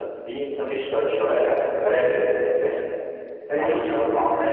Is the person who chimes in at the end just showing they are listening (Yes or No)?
No